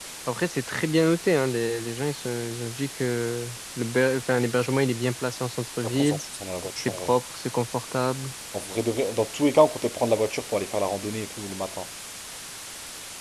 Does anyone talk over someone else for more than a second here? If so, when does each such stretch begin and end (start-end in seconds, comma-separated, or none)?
none